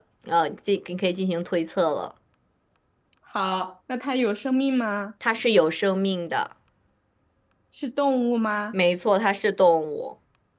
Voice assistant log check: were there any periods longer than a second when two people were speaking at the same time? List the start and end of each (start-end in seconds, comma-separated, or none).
none